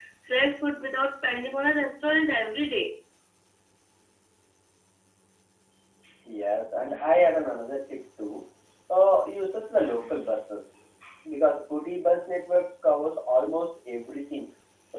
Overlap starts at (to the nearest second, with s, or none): none